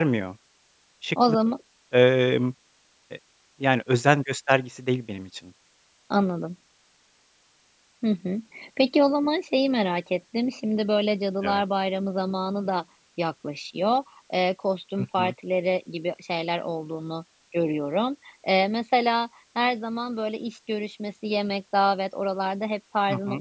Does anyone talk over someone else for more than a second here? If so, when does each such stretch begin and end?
none

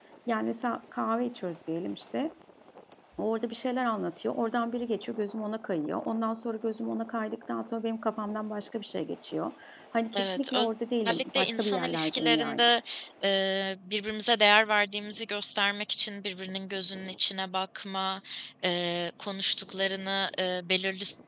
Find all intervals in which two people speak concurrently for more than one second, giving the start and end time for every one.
11.0-12.7

